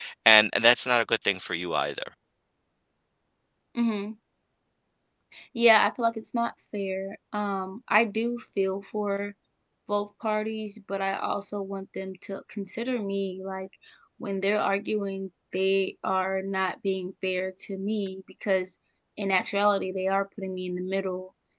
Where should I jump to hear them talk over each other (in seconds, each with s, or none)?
none